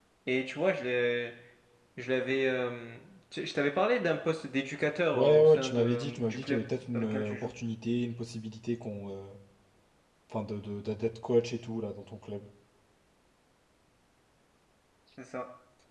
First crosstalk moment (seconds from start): 5.1 s

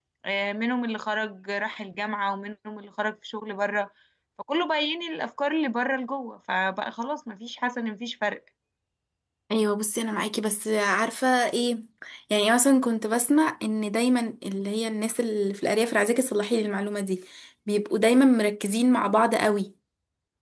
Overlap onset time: none

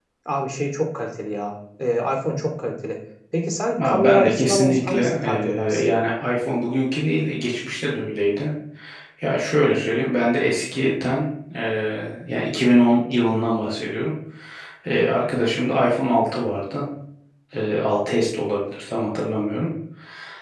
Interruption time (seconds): 3.8 s

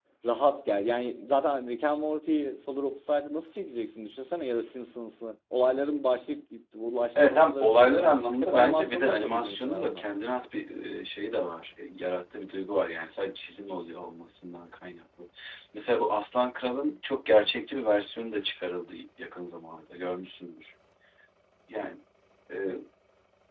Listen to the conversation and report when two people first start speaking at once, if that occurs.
7.2 s

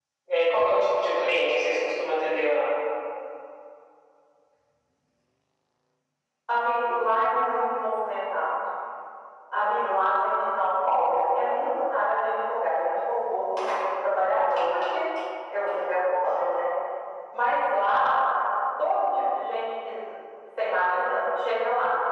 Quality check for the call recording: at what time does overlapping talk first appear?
none

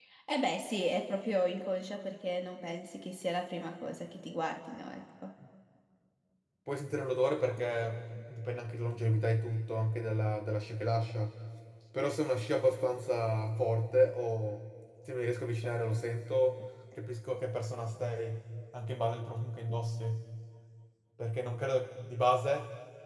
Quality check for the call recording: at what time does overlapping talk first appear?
none

